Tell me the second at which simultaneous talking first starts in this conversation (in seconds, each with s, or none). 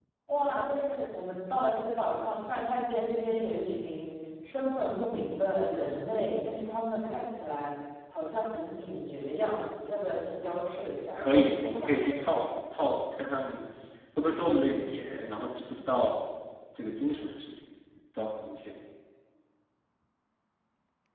11.2 s